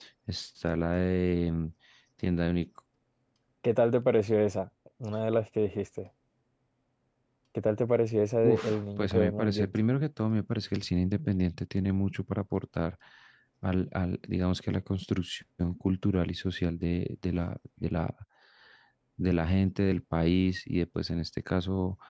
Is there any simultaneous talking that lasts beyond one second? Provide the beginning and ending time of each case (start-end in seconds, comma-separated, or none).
8.4-9.8